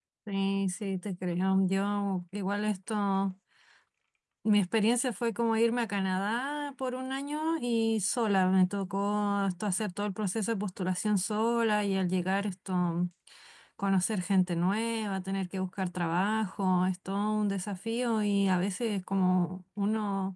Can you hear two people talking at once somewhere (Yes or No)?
No